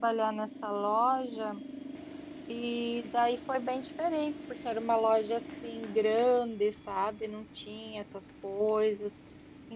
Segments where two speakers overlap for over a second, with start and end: none

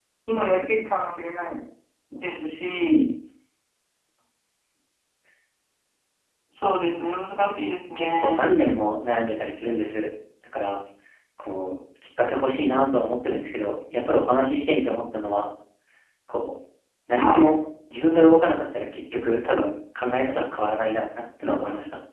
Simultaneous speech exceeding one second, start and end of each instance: none

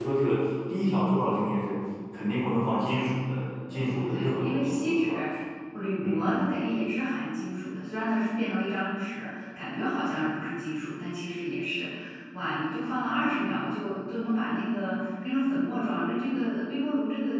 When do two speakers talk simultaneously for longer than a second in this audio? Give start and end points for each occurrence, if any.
3.7-5.2

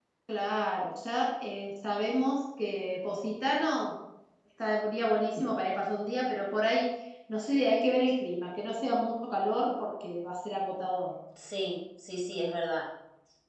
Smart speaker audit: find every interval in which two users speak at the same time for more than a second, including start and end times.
none

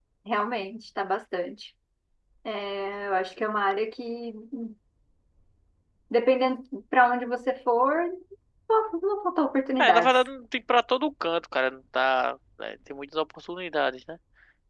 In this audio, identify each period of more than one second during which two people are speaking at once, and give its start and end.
none

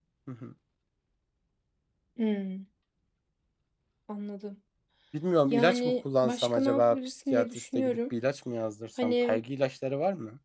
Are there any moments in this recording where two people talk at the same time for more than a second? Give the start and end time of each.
5.5-8.0

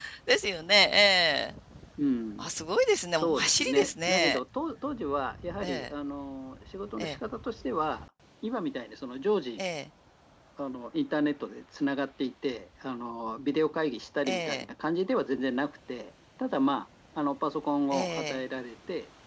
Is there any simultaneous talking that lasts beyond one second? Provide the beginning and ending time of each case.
3.2-4.4

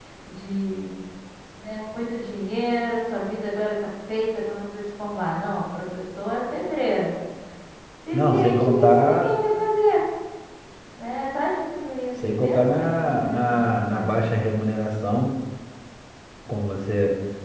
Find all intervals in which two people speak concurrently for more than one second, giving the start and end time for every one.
8.1-9.3, 12.2-14.1

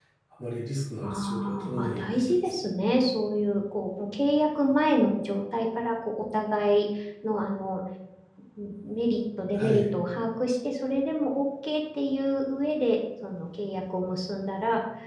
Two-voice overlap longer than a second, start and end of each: 1.0-2.6

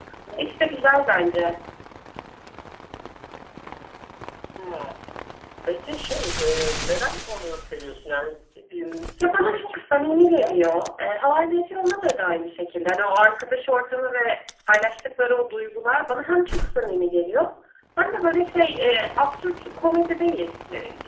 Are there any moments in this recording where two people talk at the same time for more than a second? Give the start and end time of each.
9.2-10.8

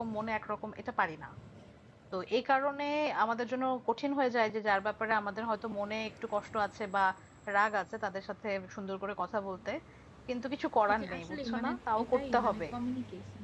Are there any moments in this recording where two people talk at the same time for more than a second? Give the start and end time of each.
10.9-12.7

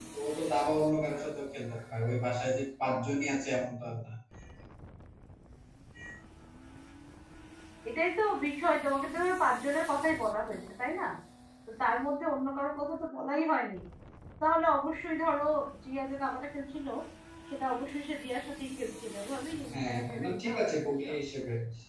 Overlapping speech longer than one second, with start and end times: 19.7-21.1

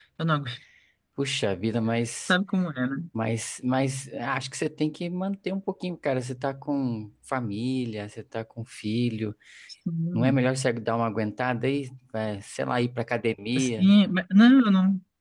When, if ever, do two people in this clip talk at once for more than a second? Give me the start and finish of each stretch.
none

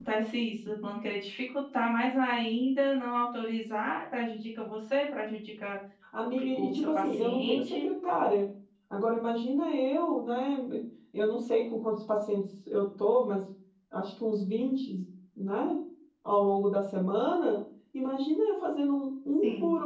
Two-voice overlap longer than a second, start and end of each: 6.4-7.9

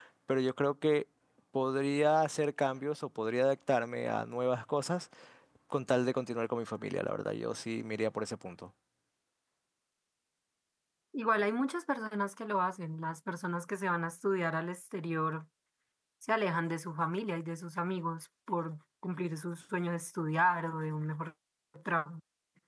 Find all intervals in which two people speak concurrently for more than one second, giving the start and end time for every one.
none

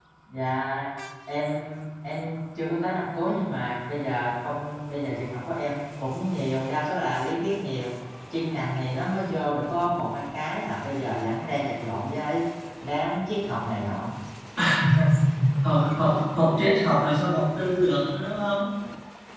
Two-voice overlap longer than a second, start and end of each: none

